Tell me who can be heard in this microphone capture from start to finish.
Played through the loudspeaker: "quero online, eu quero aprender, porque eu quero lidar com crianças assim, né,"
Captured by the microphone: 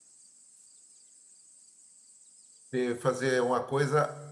user only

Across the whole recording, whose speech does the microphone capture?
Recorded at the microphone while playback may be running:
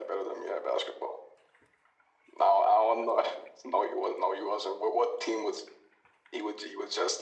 echo only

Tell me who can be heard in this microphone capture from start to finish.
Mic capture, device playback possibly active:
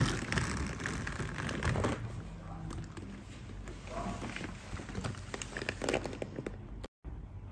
neither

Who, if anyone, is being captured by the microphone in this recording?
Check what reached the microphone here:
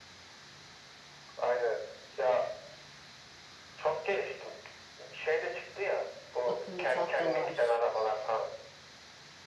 both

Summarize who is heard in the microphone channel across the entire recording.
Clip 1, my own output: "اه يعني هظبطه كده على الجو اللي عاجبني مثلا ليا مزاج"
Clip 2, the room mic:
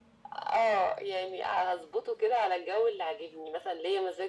echo only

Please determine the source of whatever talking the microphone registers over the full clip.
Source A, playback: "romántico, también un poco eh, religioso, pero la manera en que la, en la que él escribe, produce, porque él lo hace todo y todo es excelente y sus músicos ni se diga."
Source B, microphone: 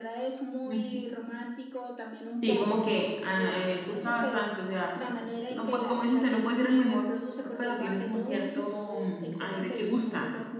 both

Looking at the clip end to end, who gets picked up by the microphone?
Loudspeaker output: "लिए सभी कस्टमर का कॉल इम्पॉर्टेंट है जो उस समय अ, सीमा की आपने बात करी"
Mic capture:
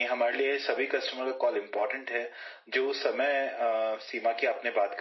echo only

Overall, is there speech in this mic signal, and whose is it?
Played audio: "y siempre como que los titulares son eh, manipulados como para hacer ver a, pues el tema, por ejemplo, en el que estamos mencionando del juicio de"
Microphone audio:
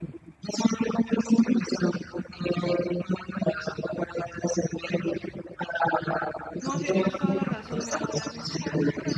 both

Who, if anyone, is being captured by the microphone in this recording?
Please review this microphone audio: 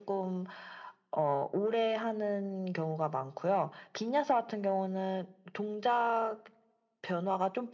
echo only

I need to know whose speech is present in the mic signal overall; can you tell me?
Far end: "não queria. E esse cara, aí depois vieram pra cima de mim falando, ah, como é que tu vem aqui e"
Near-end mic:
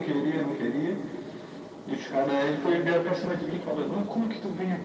echo only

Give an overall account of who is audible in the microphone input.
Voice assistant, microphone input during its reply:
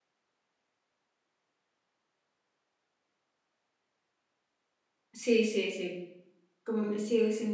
user only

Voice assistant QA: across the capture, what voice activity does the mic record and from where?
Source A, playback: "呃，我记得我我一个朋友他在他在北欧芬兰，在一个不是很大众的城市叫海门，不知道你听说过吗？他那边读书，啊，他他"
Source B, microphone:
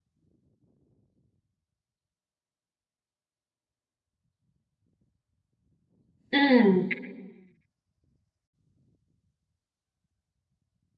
user only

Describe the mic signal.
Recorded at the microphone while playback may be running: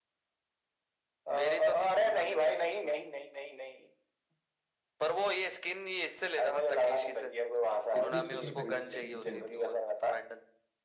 both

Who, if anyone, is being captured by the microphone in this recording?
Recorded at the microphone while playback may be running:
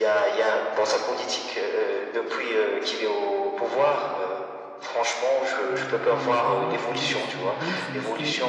both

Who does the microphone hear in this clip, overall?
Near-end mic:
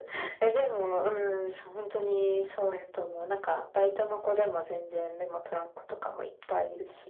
echo only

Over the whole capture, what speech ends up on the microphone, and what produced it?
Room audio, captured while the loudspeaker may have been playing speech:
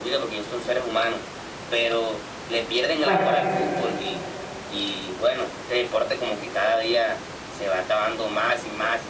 both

